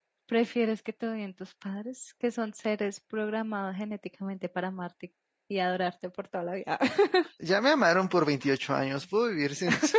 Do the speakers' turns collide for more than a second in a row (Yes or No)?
No